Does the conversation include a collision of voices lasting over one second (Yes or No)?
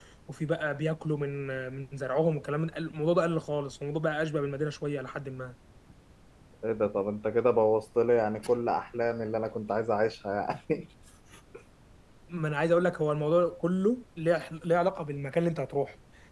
No